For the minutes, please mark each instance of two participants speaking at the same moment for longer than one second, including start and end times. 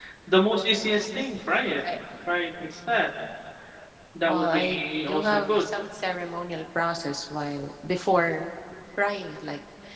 4.2-5.8

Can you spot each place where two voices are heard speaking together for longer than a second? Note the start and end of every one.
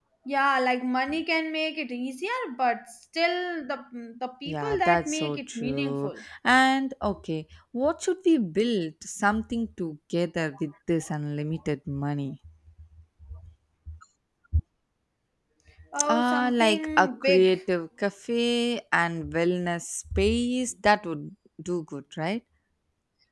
4.5-6.2, 16.1-17.6

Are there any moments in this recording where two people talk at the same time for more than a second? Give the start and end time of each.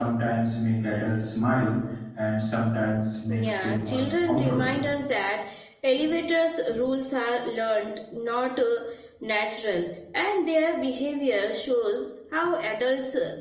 3.4-4.8

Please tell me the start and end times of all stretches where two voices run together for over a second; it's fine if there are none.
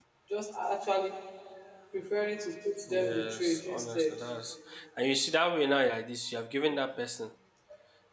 2.9-4.1

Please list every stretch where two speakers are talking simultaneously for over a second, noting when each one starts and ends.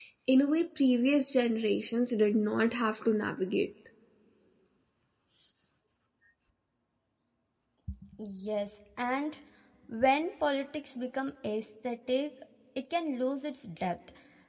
none

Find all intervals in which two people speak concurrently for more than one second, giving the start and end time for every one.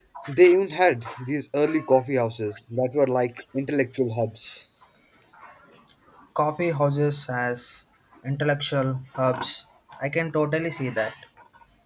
none

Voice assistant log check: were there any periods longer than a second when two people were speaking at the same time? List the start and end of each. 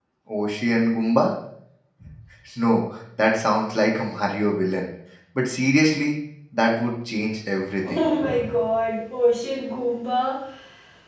none

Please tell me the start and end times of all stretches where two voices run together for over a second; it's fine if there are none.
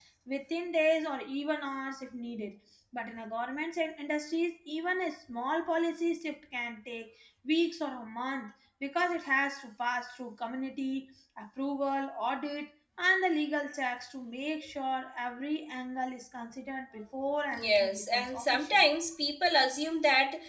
17.5-18.8

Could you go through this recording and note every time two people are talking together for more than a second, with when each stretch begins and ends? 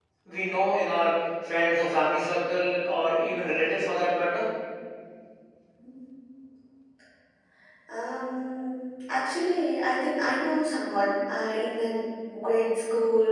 none

